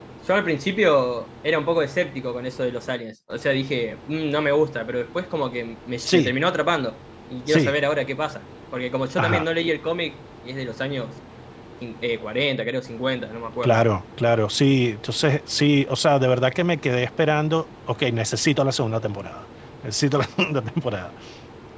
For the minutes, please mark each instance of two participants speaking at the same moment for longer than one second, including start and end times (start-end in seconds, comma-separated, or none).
none